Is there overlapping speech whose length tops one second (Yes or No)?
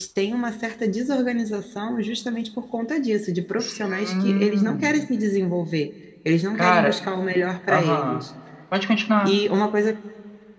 Yes